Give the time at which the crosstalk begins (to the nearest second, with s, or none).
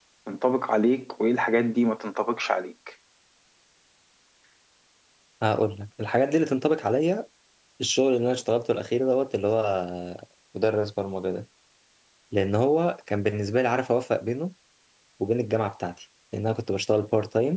none